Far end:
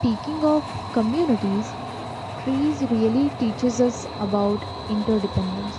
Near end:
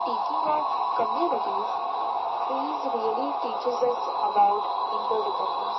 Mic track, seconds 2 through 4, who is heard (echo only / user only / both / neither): echo only